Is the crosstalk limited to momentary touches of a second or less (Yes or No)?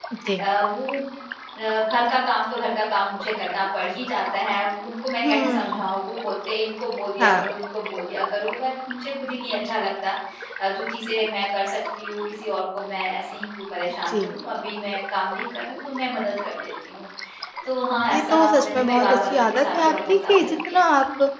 No